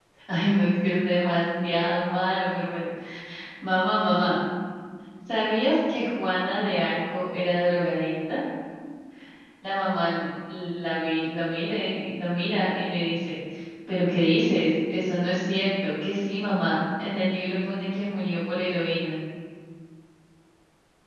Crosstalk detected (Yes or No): No